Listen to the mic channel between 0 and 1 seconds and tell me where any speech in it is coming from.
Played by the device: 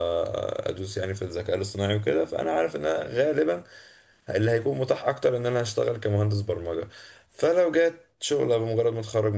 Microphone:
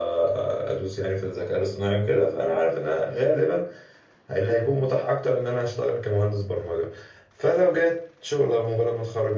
echo only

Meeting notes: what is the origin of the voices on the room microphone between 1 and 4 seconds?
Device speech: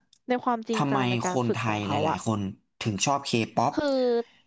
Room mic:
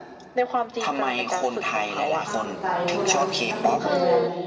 both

